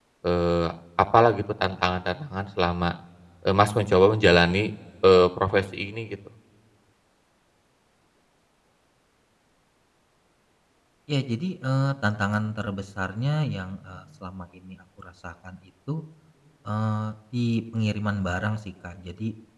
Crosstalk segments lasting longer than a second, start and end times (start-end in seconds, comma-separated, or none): none